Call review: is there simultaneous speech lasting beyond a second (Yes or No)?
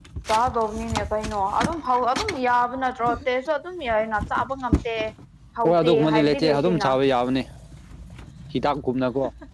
Yes